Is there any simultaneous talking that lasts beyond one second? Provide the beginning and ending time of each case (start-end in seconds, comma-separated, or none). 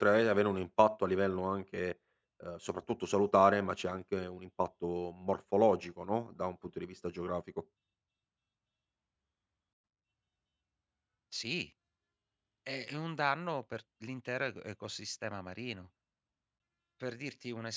none